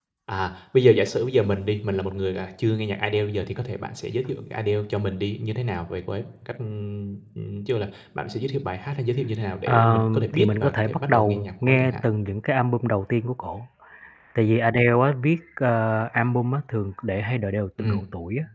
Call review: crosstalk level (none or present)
present